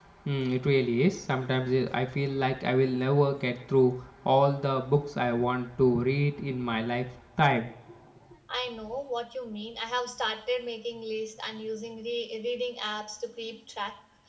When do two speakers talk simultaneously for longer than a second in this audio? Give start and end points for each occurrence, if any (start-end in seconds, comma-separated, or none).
none